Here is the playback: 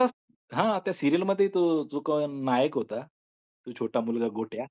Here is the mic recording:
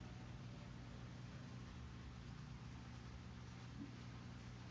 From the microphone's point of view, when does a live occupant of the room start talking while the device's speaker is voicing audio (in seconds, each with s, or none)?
none